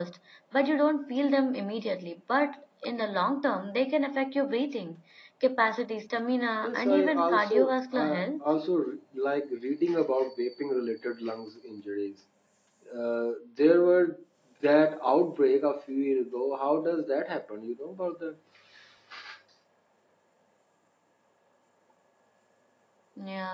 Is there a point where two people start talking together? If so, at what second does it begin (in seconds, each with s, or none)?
6.6 s